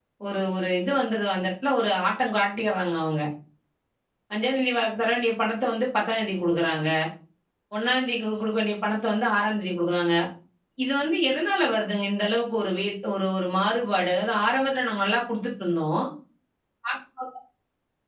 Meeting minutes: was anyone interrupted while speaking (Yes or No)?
No